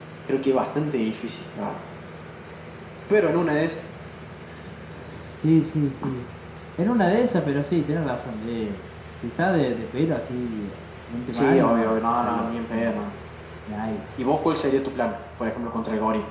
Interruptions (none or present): present